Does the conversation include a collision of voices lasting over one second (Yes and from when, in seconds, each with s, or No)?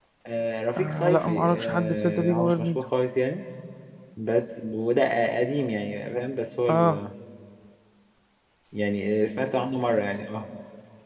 Yes, from 0.8 s